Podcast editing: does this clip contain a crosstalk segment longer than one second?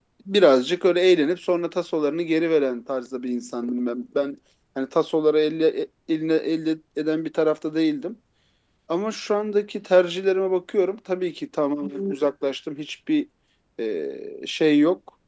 No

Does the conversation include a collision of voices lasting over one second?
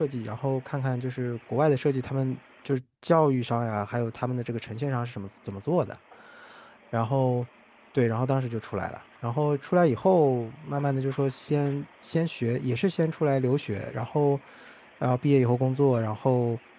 No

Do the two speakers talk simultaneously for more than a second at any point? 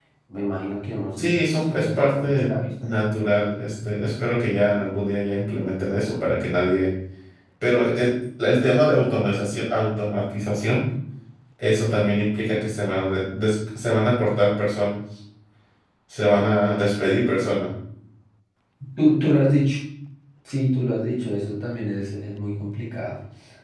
Yes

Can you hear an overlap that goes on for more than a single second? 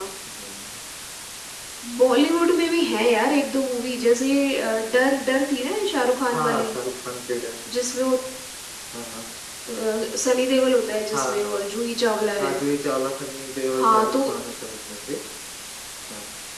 No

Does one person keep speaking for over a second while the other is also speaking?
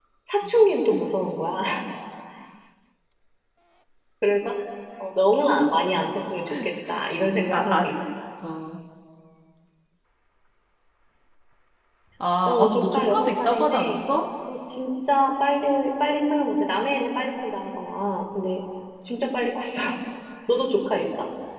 Yes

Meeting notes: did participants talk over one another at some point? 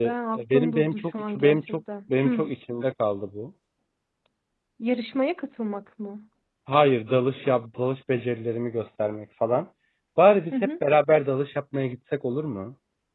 Yes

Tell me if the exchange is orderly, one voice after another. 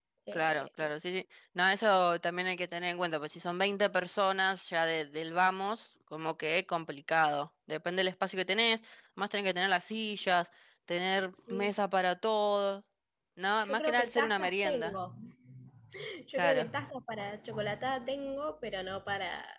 No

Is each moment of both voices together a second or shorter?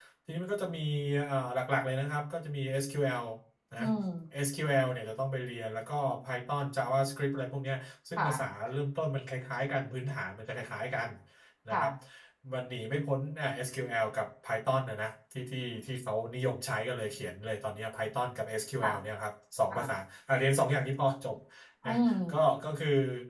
Yes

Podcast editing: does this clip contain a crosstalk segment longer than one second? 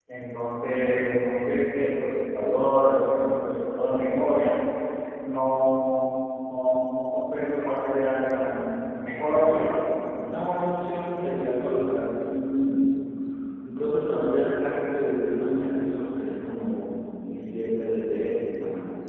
No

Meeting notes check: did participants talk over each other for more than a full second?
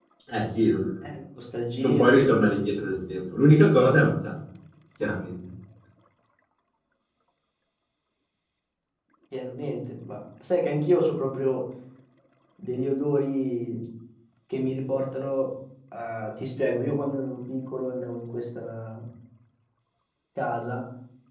No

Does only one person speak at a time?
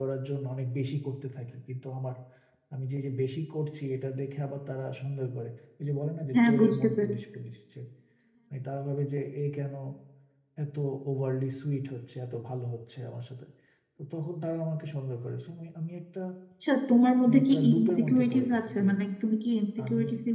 No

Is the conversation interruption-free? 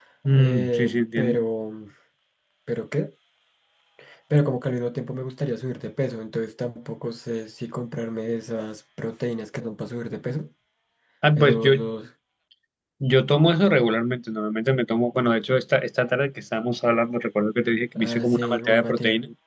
No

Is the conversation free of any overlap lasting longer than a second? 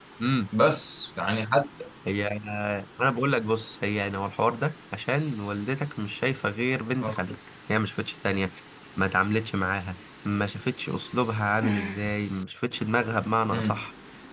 Yes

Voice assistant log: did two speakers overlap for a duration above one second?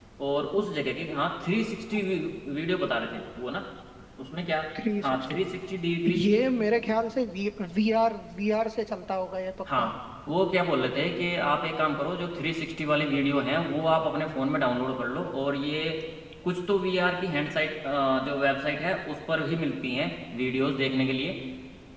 No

